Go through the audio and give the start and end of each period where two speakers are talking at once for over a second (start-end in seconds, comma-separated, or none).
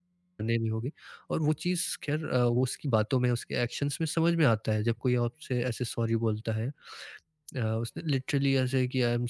none